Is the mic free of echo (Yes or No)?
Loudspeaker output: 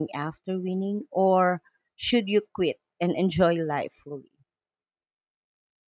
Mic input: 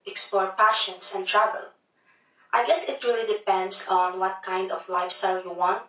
Yes